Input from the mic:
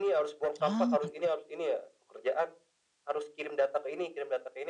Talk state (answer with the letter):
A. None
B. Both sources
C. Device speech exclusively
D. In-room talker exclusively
B